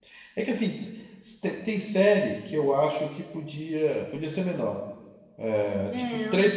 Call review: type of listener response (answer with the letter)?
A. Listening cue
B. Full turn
A